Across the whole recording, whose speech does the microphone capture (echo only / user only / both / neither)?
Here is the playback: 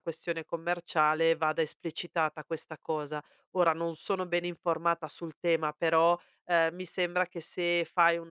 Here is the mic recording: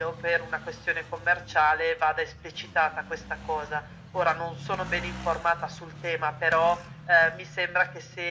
echo only